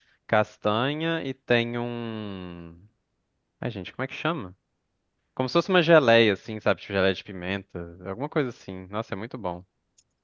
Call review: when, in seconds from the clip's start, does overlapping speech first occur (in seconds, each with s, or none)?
none